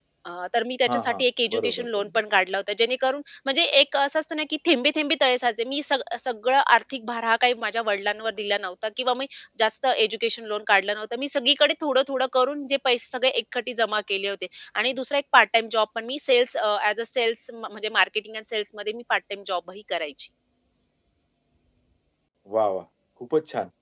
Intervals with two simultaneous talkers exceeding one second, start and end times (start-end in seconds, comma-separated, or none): 0.9-2.2